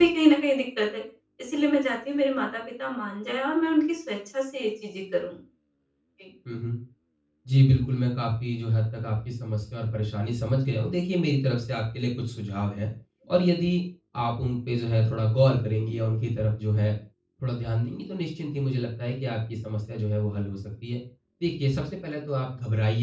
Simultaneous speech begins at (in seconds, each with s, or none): none